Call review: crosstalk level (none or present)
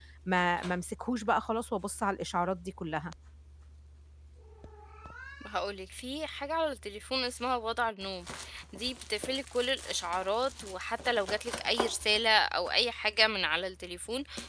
none